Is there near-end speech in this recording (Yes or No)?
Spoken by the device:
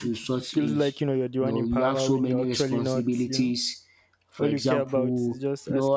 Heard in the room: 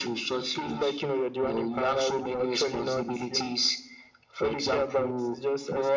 No